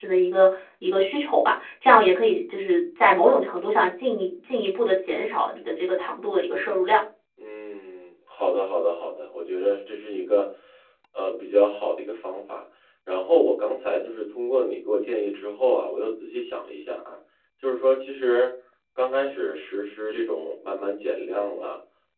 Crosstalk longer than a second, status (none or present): none